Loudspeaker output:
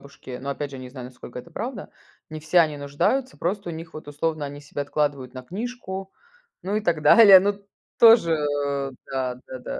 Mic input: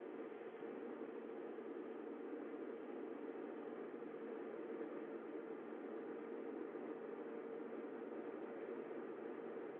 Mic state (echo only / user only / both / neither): neither